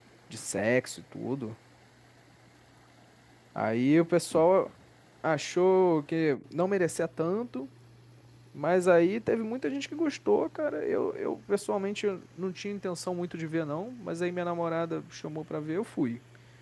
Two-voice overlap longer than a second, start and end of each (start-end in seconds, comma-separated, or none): none